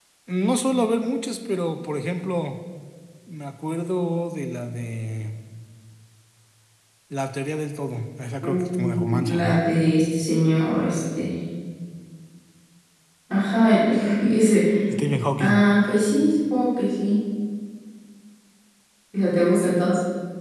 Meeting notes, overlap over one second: present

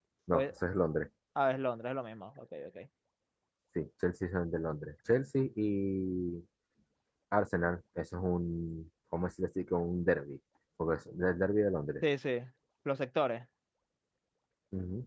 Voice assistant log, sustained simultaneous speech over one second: none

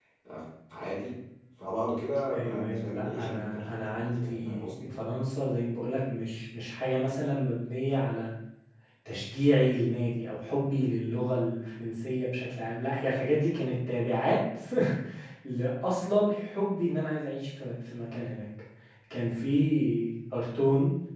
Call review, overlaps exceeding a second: present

